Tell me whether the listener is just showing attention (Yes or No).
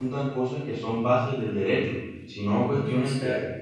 Yes